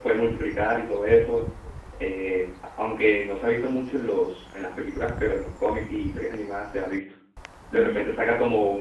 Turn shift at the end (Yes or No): No